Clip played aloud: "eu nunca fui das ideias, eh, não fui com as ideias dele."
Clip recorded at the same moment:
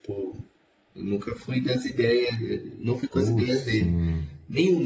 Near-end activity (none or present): present